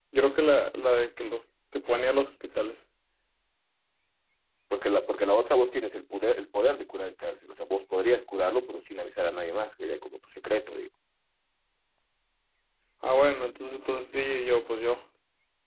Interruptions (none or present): none